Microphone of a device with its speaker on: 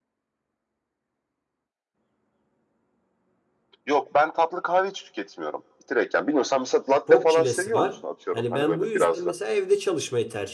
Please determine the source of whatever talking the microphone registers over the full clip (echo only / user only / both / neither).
both